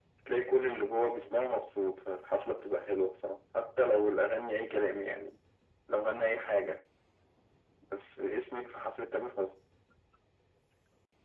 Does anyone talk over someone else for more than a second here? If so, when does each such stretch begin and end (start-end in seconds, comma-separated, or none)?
none